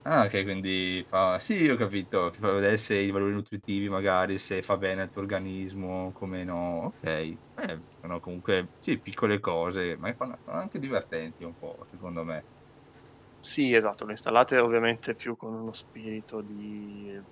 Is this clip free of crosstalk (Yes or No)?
Yes